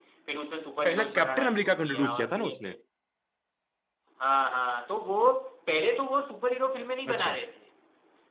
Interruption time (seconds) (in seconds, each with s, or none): 0.8 s